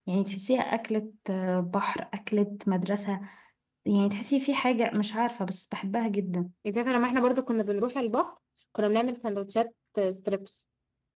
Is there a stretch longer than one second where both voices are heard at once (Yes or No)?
No